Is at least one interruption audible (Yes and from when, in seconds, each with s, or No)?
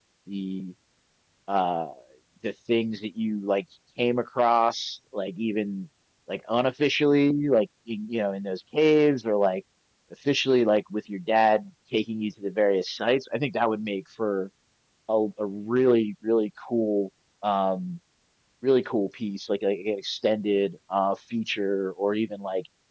No